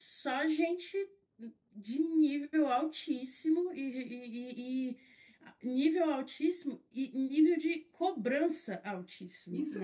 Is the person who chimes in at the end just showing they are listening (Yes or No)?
No